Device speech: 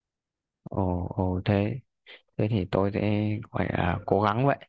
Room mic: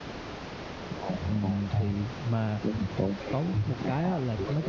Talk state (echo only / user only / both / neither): both